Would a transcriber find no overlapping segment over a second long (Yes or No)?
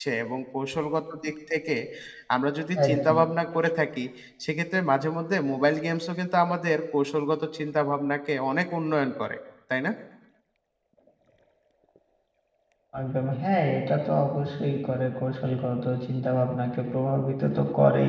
Yes